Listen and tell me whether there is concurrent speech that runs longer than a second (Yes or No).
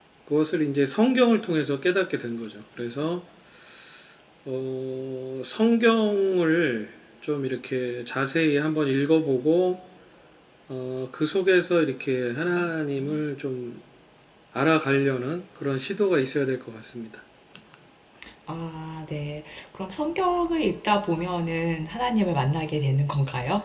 No